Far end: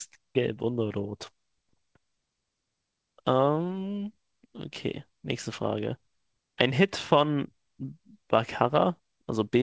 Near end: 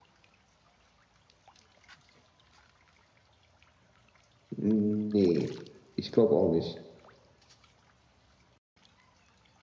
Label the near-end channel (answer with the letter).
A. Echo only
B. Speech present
B